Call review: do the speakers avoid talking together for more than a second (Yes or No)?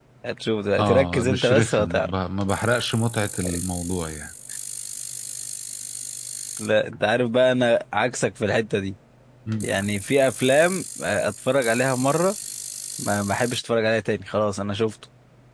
No